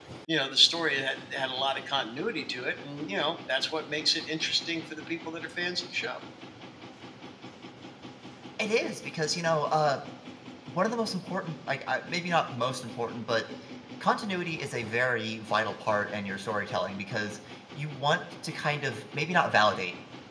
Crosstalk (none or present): none